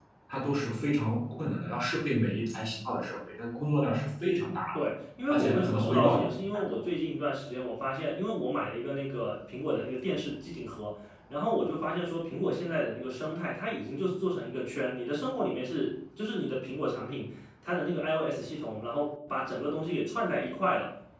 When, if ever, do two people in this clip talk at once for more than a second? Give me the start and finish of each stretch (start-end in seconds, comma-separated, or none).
5.3-6.6